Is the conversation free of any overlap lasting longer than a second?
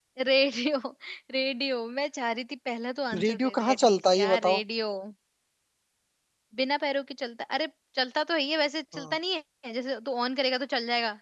No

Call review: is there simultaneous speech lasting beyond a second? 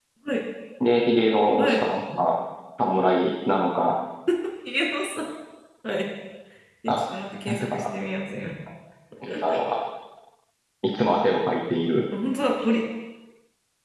No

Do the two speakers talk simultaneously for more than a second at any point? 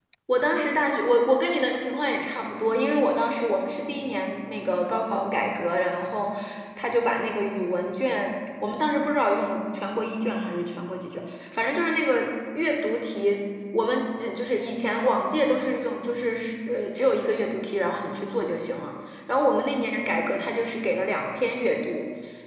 No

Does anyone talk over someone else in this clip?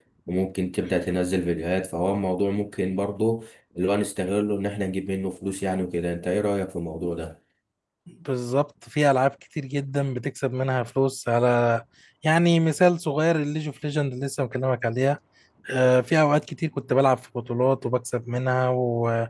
No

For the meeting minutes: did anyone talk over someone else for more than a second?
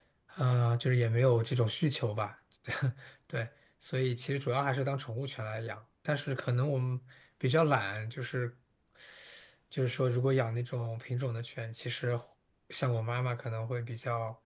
No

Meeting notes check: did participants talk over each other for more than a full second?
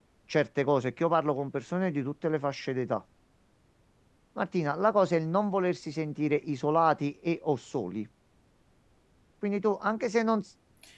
No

